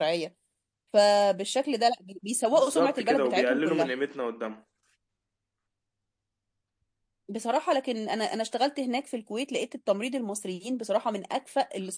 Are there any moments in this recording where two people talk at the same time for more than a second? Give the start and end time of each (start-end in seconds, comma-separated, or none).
2.5-3.9